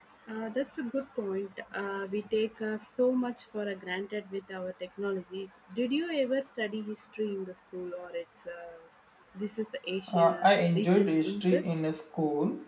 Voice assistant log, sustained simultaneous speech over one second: present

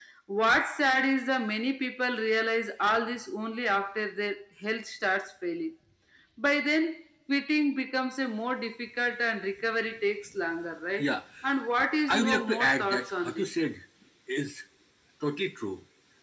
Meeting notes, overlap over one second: present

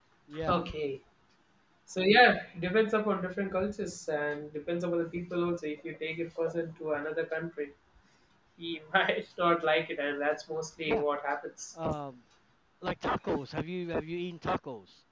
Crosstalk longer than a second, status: none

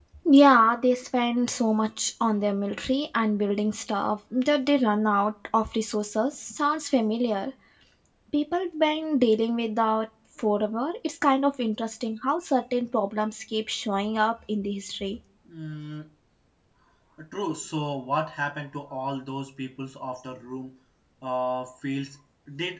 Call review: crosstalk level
none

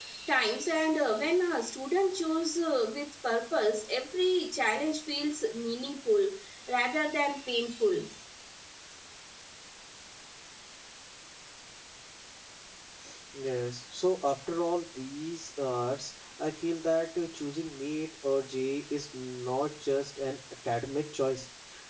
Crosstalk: none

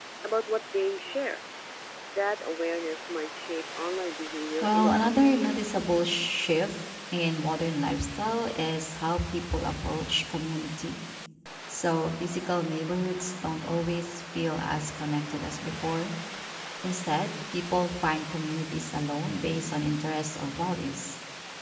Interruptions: present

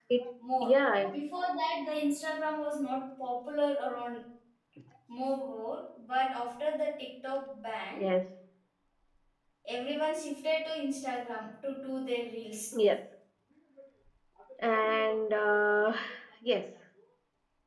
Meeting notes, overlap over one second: none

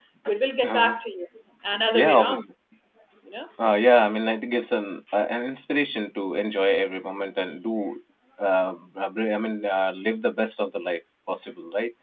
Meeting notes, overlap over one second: none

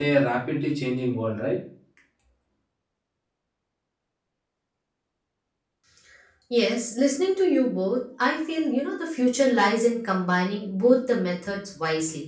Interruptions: none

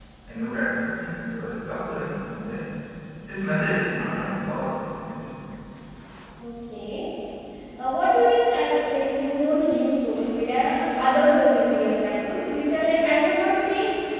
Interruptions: none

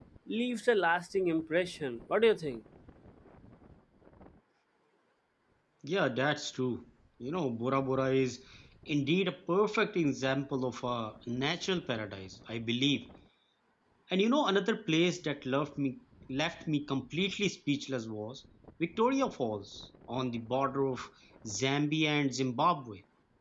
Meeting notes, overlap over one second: none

